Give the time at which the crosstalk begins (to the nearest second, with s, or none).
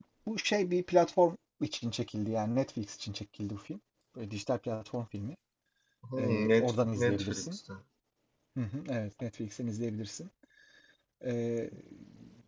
6 s